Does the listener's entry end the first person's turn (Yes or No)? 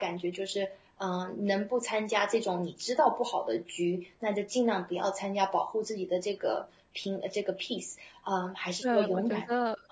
Yes